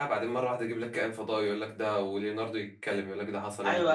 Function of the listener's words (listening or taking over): taking over